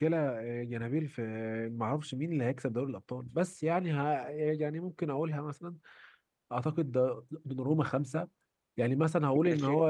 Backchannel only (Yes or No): Yes